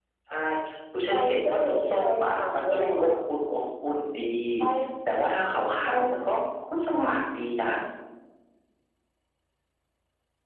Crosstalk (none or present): present